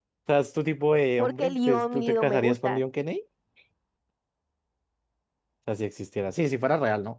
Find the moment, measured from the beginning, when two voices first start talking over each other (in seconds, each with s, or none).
1.2 s